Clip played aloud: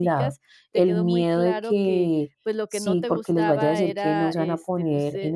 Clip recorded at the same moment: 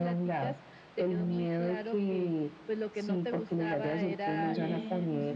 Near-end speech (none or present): present